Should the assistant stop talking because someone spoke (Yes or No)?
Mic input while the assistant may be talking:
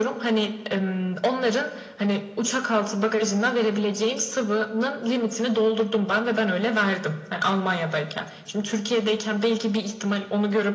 No